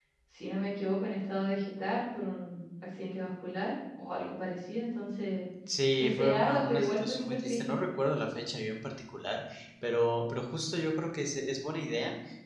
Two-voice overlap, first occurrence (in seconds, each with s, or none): 6.0 s